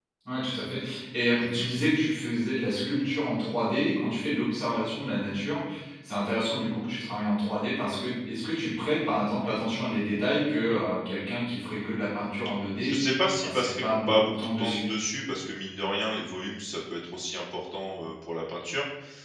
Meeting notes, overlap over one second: present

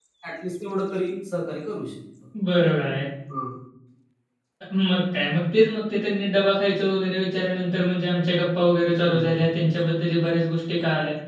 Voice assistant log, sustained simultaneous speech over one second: none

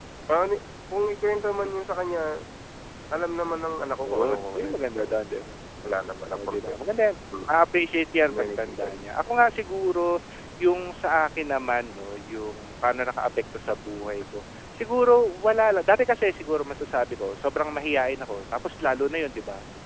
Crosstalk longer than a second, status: present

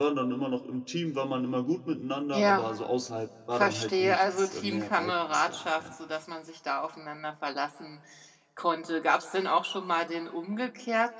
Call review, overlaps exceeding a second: present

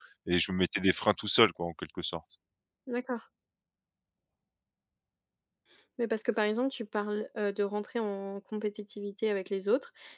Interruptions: none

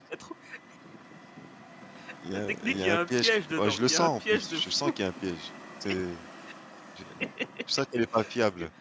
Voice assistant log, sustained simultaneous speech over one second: present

